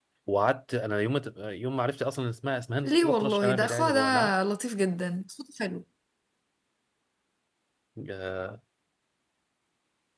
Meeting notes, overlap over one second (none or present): present